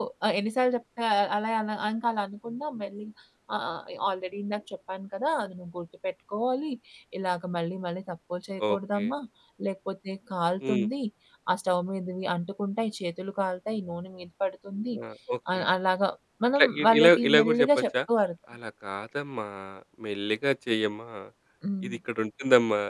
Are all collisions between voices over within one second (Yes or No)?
No